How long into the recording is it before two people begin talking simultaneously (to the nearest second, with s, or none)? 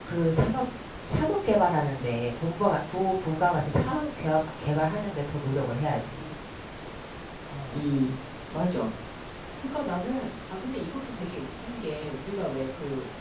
none